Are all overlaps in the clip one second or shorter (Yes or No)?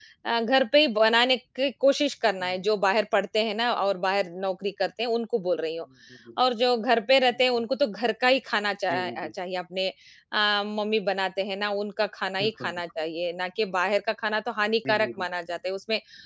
Yes